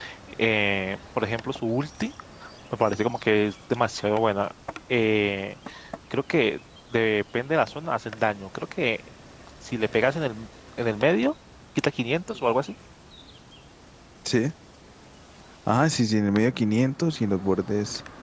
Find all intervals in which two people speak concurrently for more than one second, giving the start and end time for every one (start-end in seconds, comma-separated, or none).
none